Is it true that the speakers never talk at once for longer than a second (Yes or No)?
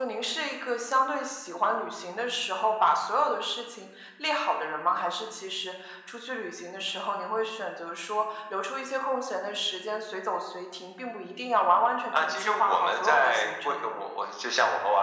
No